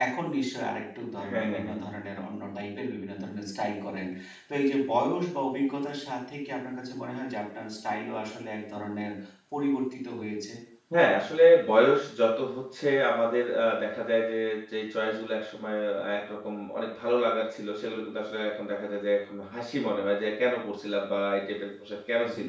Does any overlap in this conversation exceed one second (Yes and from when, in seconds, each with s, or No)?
No